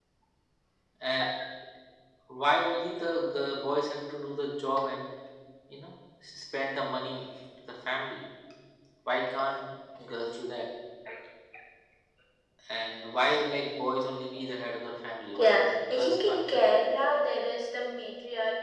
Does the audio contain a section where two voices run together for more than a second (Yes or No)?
Yes